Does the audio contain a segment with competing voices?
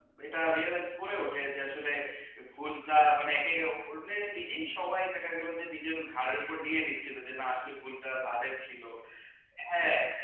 No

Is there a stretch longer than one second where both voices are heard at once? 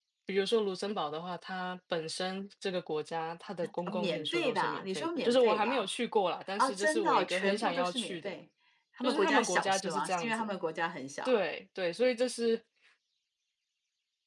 Yes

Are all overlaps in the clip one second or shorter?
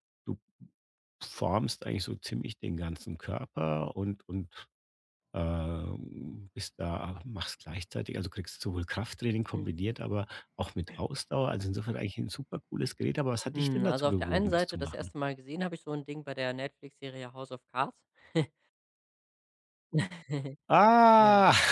No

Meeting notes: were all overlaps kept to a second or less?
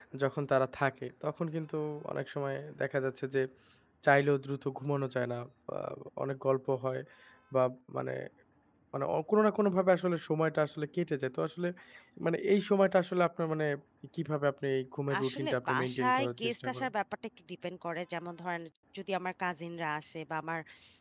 No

